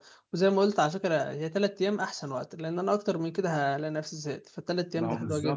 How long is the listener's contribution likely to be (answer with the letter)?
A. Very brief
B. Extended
B